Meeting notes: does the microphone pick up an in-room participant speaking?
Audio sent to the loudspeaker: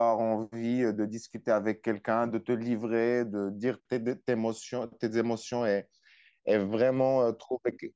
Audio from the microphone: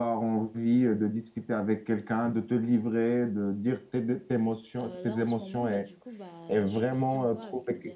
Yes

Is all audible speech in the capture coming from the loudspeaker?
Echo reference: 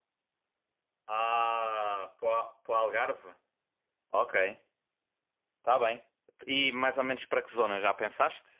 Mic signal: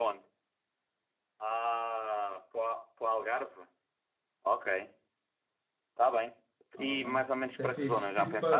No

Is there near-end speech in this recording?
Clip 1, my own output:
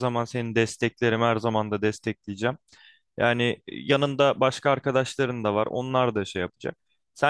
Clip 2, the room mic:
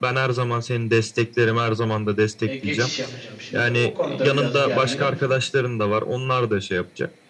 Yes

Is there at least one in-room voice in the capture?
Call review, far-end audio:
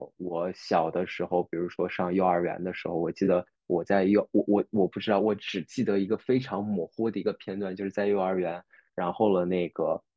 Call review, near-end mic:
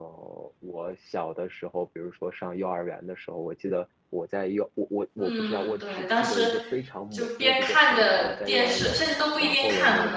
Yes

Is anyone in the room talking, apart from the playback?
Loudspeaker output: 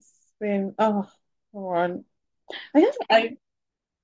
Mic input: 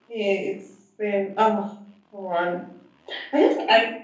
No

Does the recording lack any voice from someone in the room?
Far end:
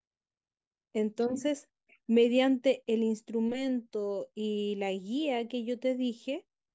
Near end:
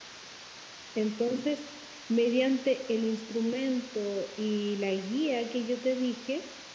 Yes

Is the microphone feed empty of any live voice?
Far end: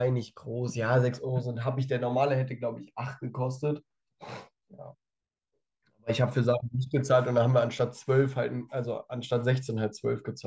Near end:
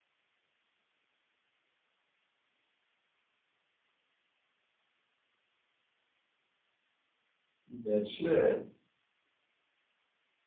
No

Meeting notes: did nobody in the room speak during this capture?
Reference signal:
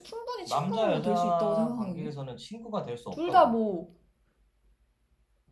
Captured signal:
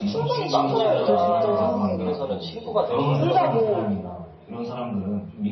No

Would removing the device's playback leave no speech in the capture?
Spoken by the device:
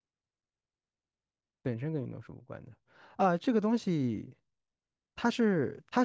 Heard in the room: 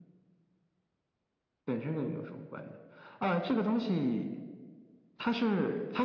Yes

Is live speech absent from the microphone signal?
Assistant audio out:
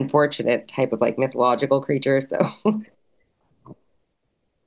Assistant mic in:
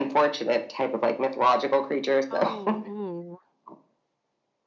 No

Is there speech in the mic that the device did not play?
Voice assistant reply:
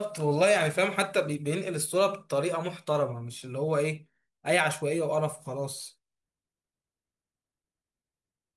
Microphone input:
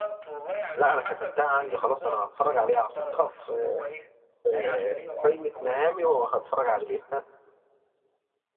Yes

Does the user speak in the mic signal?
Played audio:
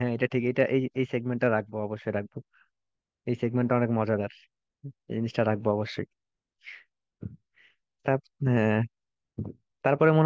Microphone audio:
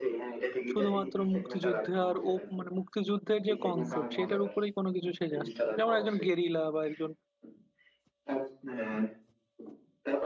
Yes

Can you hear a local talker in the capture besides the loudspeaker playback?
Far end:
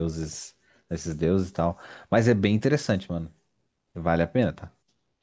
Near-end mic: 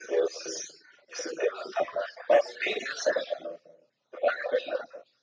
No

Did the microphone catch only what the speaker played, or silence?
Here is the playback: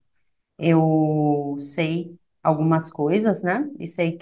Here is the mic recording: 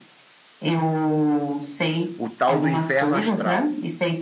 No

